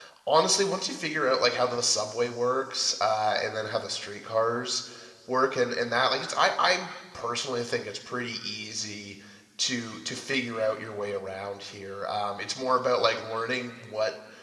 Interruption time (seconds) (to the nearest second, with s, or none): none